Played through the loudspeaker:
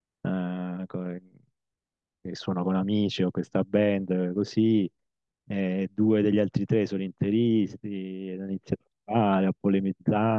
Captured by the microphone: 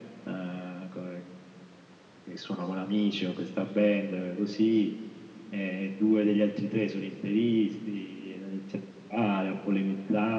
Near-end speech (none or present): none